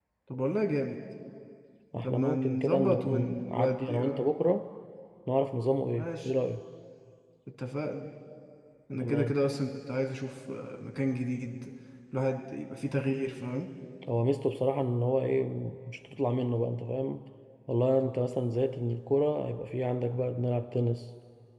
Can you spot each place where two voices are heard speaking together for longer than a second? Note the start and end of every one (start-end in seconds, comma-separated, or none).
2.0-4.3